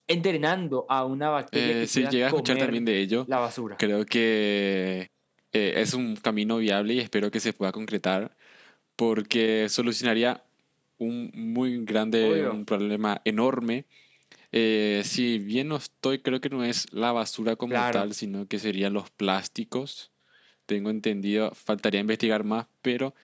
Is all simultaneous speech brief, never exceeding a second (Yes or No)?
No